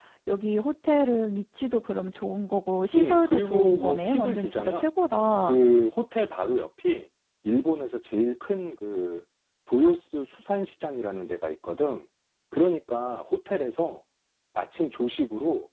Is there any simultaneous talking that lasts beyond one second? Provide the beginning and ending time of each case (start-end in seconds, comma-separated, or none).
2.9-4.9